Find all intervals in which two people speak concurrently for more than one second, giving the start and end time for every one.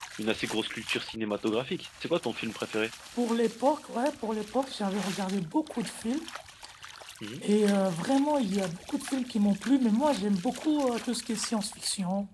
none

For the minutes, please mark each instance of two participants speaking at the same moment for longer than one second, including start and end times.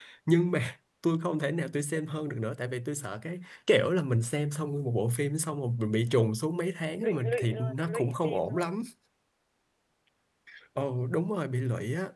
7.0-8.7

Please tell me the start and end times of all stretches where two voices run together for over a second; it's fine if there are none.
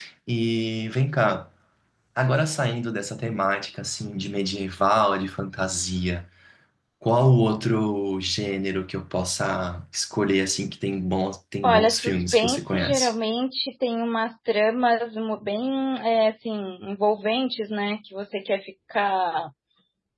11.6-13.1

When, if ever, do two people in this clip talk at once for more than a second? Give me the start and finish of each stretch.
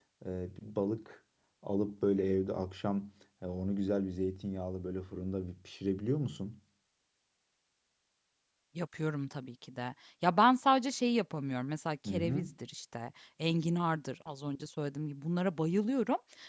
none

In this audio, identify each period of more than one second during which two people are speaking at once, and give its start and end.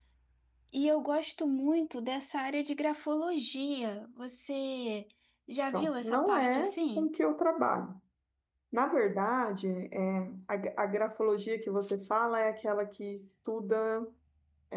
5.7-7.1

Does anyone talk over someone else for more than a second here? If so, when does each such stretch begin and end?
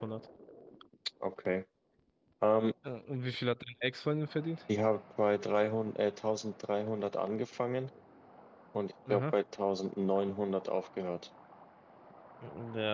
none

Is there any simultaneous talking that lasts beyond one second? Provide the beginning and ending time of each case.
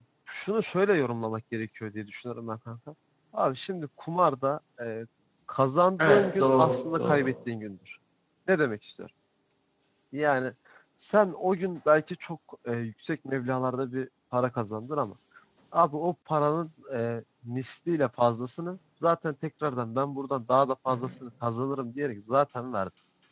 6.0-7.3

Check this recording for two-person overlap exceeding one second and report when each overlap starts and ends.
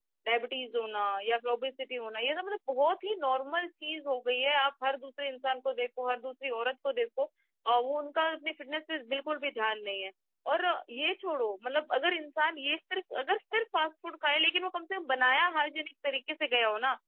none

